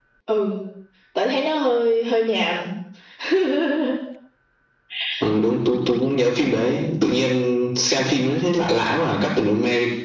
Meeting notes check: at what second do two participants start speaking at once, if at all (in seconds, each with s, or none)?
none